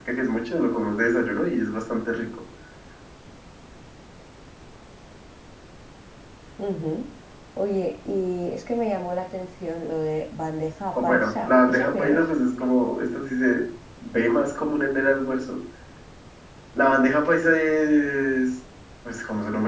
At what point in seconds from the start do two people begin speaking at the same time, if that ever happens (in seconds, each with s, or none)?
11.0 s